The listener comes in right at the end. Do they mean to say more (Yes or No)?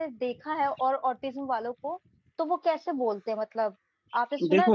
Yes